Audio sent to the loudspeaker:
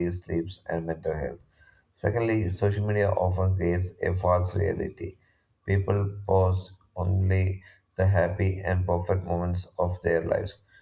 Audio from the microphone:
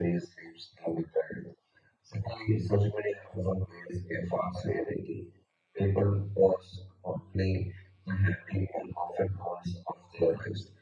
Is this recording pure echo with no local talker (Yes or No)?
Yes